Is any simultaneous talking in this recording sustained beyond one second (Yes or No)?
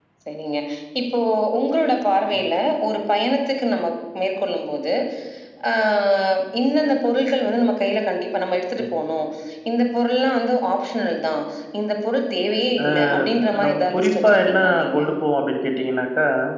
Yes